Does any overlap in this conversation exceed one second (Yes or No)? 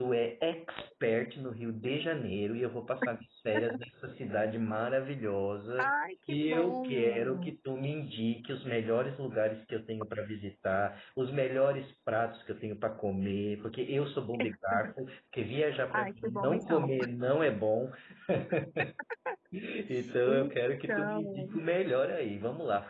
Yes